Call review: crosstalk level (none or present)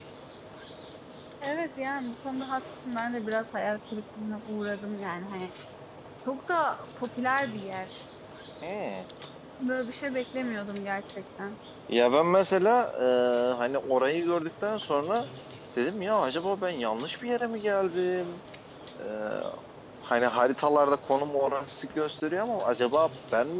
none